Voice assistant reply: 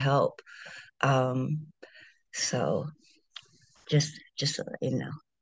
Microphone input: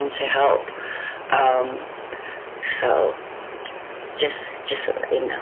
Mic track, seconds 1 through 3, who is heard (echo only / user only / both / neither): echo only